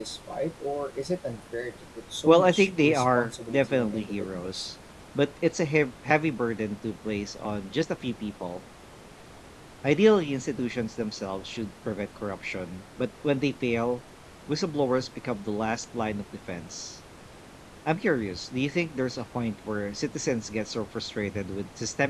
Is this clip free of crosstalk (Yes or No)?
No